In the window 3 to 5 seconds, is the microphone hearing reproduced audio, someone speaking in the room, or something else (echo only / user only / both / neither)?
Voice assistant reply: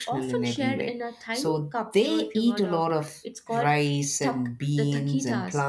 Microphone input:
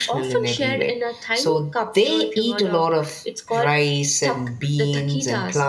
echo only